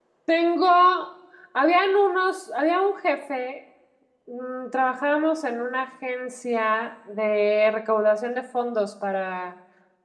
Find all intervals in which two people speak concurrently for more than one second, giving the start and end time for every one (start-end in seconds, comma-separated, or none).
none